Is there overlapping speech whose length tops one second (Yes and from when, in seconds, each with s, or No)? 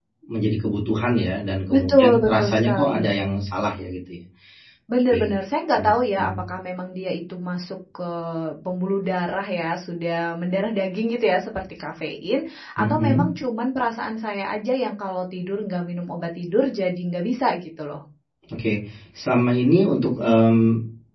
Yes, from 1.7 s